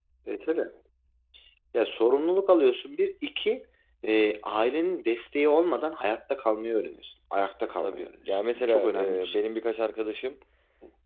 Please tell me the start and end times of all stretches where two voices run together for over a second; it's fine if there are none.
7.8-9.4

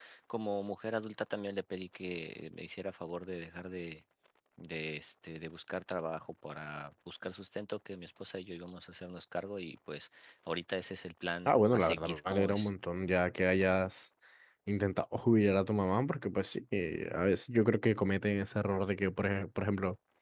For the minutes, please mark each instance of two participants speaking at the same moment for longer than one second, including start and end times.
11.5-12.7

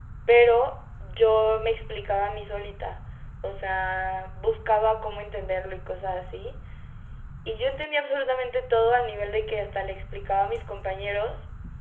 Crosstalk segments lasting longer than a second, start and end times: none

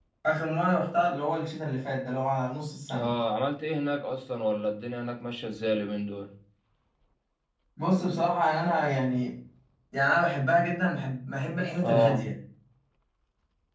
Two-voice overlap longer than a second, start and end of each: none

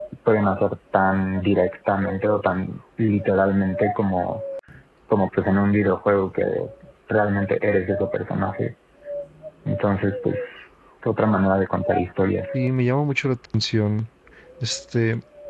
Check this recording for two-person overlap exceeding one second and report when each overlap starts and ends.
none

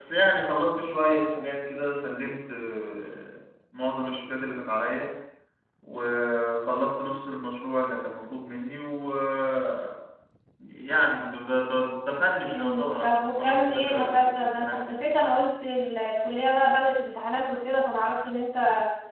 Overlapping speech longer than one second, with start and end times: 12.5-15.0

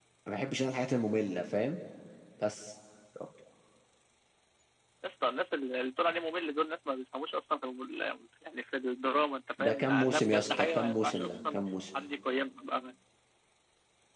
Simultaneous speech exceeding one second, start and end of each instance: 9.6-11.6

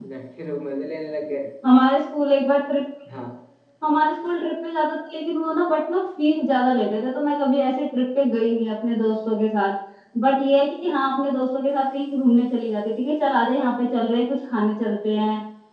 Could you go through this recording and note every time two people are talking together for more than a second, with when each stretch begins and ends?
none

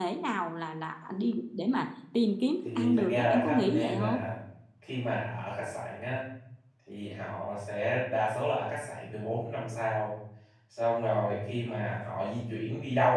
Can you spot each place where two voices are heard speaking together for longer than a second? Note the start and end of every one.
2.6-4.2

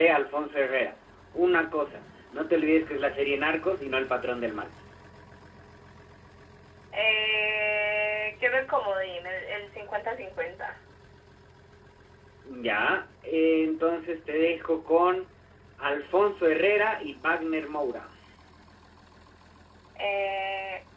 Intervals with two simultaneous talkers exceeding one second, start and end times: none

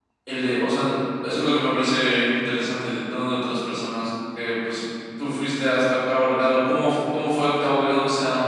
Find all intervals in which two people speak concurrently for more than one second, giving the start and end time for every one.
none

